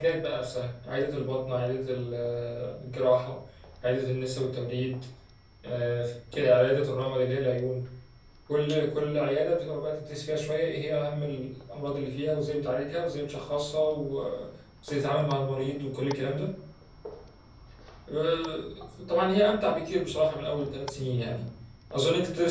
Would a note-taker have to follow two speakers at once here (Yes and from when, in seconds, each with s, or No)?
No